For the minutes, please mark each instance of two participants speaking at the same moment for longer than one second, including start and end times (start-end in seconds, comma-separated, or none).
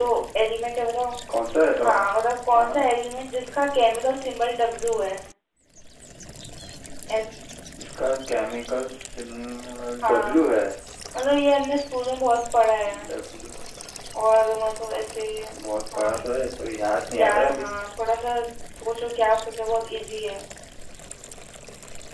none